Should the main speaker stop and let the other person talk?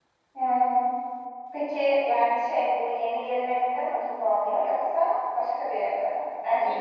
Yes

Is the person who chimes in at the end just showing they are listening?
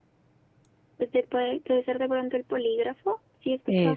Yes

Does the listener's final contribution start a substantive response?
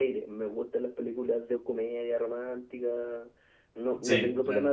No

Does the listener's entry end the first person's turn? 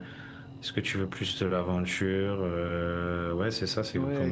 Yes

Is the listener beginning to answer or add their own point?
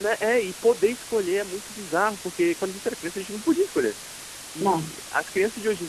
No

